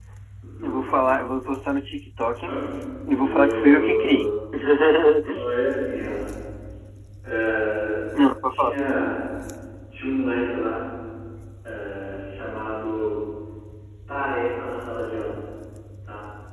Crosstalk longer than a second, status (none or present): present